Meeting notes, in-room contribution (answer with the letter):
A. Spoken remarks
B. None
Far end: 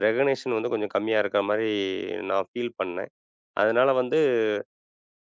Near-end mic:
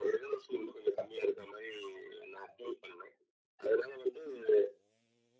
B